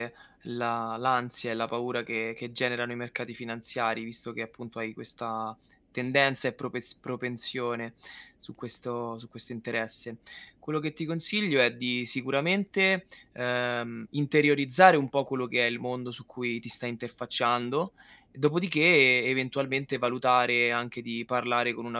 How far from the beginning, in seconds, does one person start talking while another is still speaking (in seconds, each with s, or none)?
none